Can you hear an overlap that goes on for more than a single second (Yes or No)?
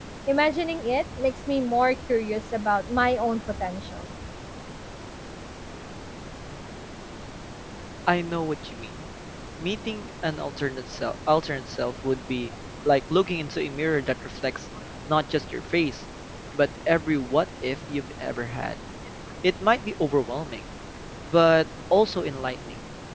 No